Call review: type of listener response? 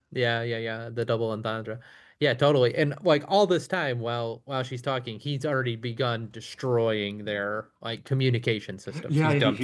taking over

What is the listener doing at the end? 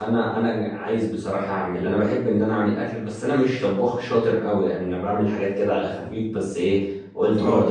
listening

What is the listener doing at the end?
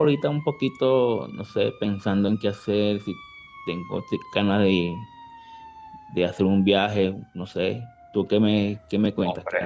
taking over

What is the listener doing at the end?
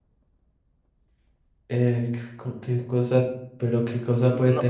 taking over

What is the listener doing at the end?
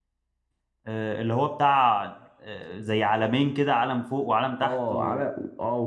taking over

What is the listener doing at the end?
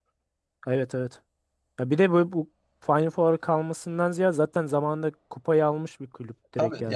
taking over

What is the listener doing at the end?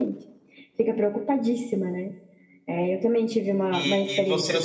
taking over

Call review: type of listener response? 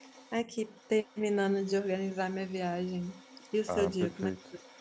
taking over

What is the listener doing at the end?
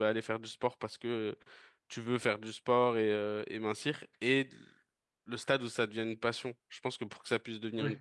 listening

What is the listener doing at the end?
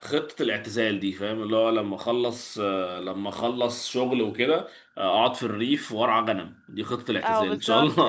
taking over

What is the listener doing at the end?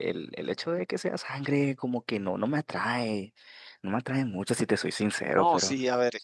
taking over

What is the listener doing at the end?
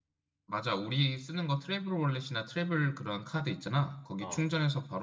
listening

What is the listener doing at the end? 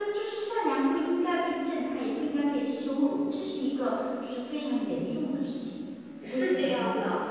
taking over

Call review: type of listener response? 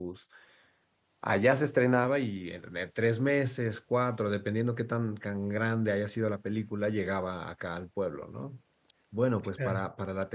listening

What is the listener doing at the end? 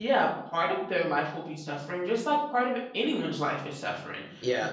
taking over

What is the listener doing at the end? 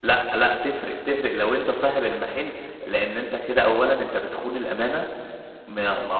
listening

